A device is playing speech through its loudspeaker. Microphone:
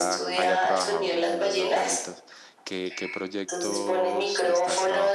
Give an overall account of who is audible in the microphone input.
both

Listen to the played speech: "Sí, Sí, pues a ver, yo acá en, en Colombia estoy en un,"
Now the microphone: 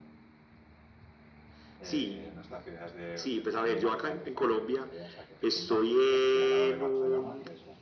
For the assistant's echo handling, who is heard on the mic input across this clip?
both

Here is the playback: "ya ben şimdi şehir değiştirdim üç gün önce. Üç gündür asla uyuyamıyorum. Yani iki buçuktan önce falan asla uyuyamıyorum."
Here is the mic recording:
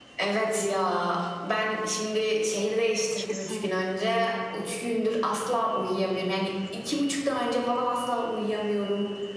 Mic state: both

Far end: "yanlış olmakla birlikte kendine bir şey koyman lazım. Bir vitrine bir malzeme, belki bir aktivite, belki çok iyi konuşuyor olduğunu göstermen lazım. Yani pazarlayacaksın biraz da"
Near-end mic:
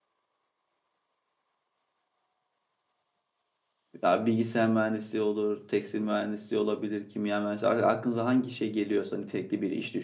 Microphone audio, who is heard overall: user only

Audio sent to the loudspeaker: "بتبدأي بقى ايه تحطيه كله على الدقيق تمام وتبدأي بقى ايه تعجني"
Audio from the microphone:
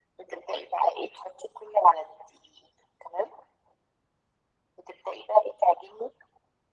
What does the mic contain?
echo only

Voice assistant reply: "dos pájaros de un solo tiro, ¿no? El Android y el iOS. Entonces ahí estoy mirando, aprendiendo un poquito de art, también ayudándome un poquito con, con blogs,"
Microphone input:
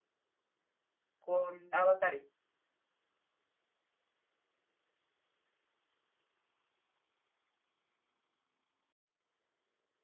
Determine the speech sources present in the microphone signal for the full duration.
user only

